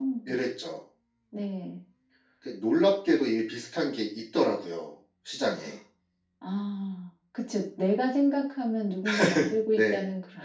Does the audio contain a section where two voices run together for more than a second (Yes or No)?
No